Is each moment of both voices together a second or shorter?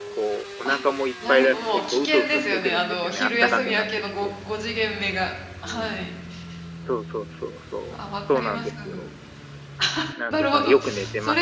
No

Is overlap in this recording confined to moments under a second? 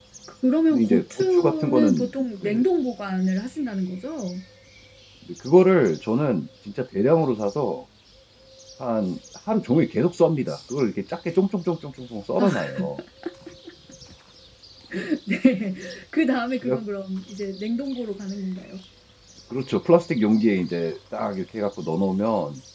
No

